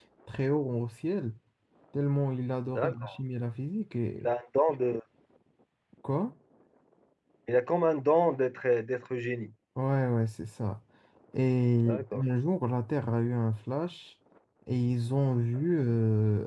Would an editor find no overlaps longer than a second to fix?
Yes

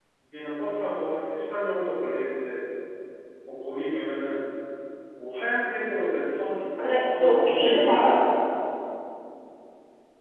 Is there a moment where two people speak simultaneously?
Yes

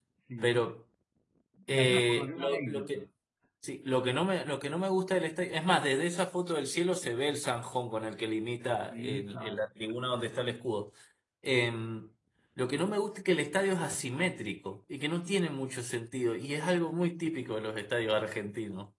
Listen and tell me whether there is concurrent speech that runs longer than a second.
Yes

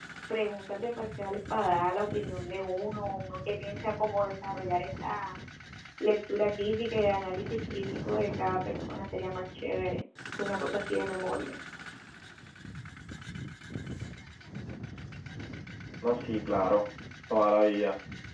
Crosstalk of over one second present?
No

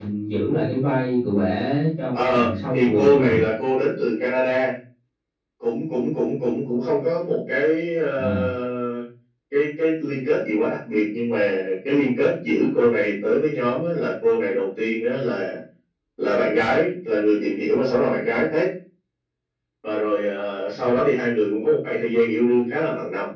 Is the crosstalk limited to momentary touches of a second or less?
No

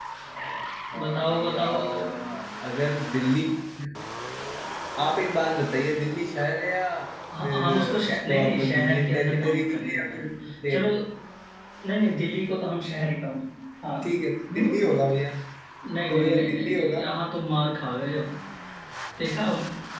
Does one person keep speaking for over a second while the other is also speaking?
Yes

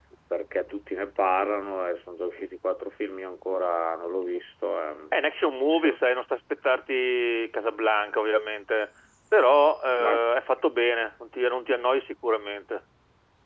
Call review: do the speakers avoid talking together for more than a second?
Yes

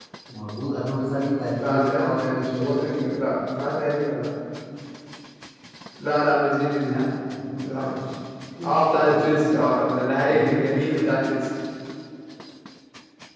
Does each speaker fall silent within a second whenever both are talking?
No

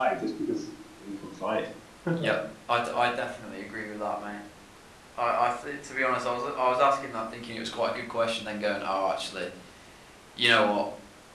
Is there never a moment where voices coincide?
Yes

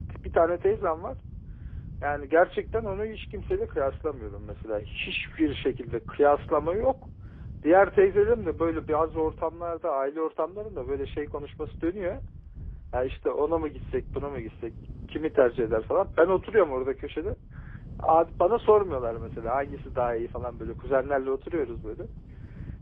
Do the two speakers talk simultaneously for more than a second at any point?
No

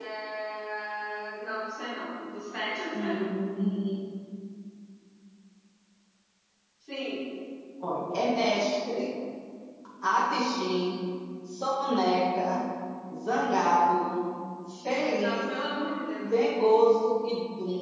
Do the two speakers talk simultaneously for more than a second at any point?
No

